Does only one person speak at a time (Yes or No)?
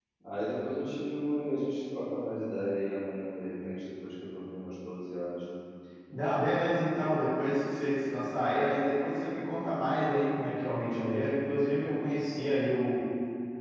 Yes